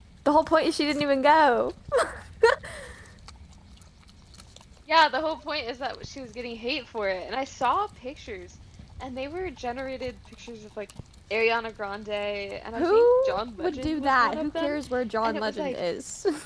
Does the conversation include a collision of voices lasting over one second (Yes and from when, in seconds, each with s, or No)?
Yes, from 12.8 s